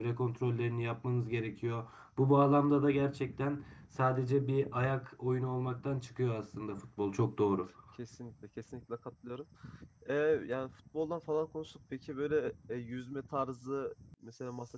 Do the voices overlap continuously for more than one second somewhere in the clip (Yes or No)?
No